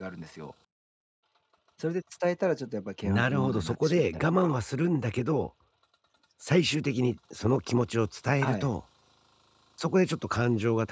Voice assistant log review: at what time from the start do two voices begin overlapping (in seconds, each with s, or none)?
3.0 s